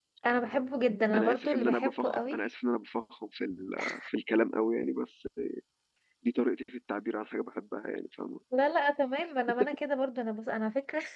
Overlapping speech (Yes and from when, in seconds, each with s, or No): Yes, from 1.1 s